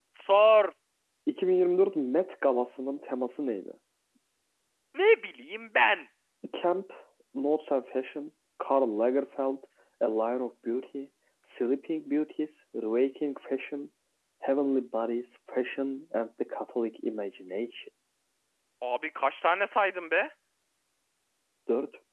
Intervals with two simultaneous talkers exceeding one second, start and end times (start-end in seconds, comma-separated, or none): none